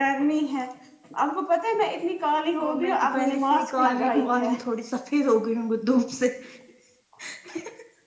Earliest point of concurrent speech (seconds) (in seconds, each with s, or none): 2.6 s